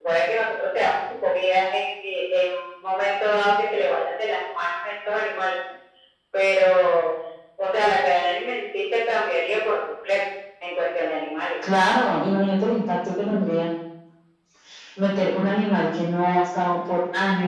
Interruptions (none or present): none